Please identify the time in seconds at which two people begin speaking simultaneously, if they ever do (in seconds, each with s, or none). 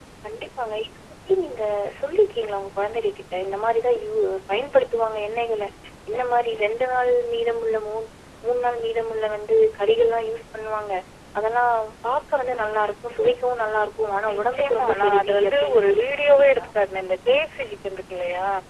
14.3 s